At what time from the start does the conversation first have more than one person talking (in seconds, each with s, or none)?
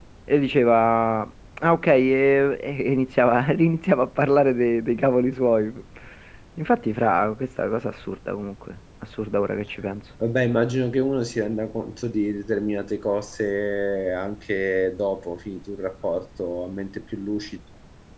none